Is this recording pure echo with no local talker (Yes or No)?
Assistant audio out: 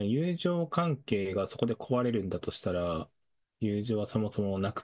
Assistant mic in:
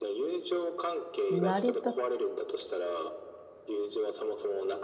No